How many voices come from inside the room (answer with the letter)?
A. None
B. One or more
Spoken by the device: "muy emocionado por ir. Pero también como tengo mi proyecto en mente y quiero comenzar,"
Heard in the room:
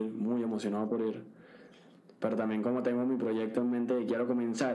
A